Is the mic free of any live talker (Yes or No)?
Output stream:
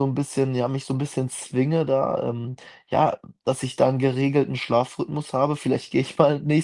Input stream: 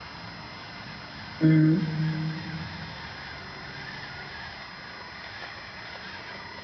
No